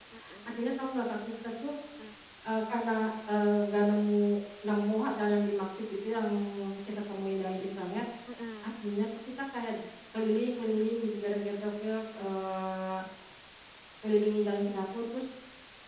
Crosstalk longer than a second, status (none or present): none